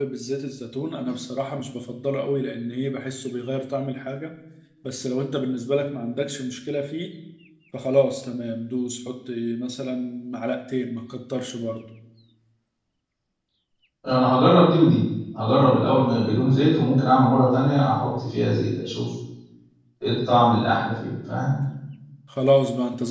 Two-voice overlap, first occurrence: none

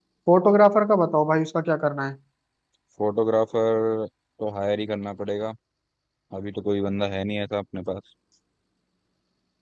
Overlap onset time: none

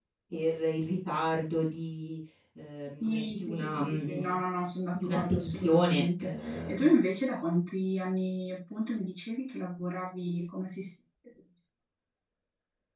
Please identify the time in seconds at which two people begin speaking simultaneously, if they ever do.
3.0 s

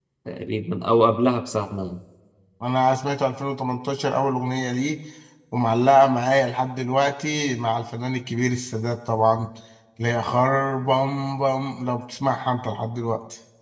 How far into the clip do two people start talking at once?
none

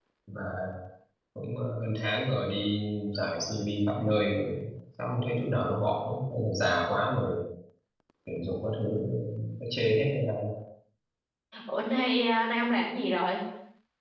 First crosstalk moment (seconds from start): none

